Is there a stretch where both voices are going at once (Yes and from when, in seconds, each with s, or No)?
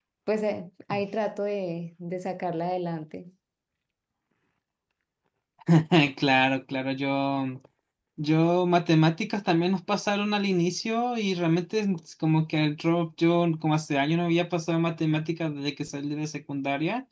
No